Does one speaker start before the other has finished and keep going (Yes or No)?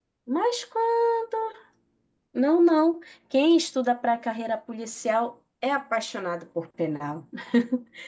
No